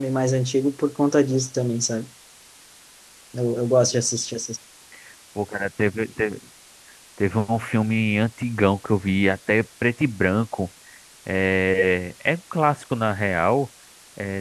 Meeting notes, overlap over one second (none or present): none